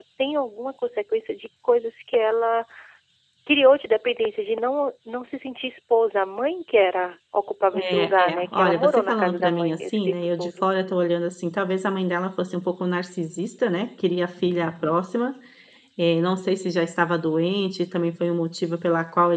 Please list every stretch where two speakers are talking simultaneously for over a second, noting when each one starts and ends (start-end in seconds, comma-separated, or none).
7.7-10.5